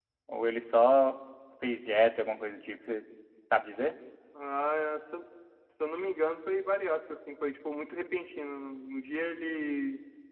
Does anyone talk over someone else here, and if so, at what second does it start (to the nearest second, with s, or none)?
none